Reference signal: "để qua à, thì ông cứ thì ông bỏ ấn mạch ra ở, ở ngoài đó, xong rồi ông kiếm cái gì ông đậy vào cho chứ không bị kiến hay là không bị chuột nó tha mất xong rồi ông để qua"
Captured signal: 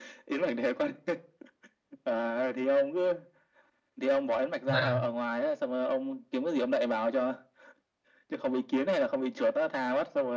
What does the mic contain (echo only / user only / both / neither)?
both